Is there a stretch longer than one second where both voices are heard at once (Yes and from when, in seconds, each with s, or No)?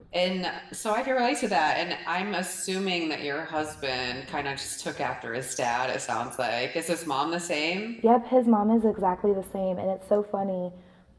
No